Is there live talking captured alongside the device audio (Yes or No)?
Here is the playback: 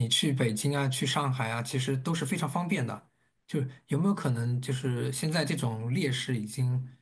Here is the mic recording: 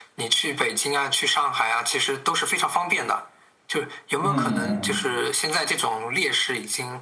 Yes